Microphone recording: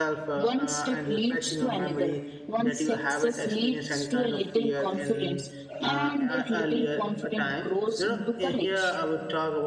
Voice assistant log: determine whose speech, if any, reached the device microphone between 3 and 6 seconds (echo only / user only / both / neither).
both